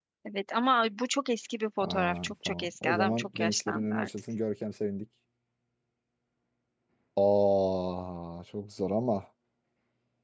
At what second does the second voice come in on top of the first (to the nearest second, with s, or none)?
2 s